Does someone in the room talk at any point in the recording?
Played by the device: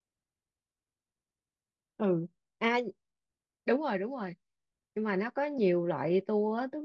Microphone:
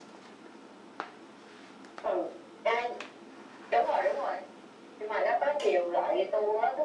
No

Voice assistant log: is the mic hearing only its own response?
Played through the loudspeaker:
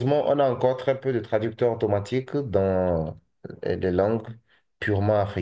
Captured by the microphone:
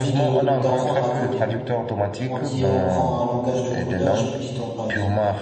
No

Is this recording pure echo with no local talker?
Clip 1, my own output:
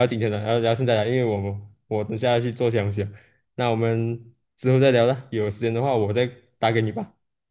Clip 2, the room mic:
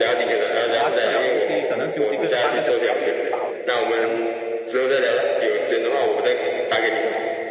No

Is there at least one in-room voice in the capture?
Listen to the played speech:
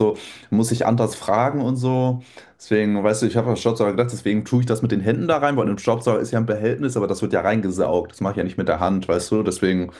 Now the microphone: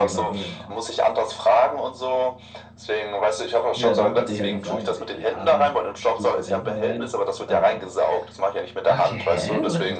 Yes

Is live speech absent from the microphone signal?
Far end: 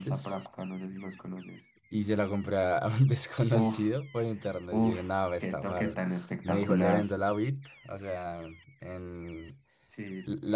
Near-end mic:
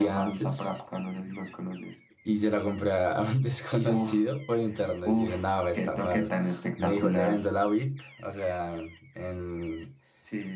Yes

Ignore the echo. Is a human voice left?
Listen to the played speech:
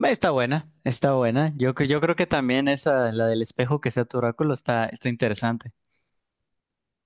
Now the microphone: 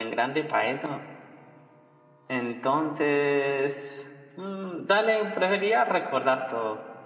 Yes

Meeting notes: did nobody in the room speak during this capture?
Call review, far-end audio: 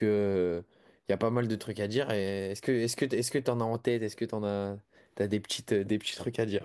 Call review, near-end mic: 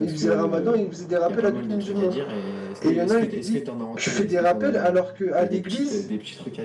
No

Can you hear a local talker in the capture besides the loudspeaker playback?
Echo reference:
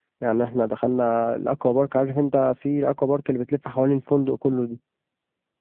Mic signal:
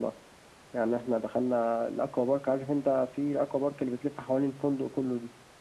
No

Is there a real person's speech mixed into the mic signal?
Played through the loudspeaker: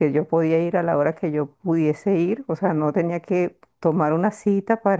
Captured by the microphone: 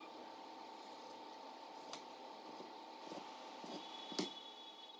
No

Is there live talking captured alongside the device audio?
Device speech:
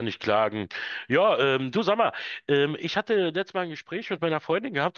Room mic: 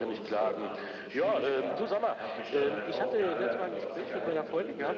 Yes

